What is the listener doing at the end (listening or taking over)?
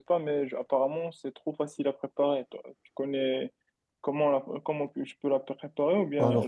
taking over